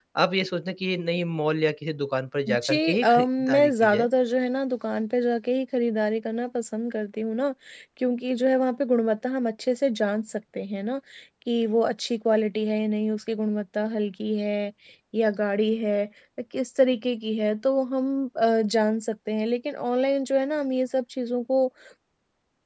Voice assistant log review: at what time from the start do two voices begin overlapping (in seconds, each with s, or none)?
2.5 s